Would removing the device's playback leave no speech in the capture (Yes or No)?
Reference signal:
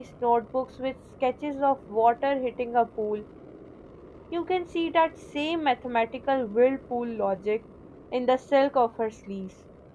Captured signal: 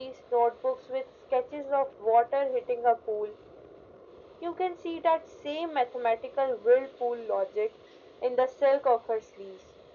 Yes